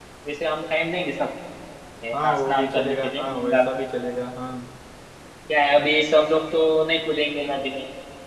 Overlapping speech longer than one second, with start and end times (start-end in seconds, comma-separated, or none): 2.1-3.7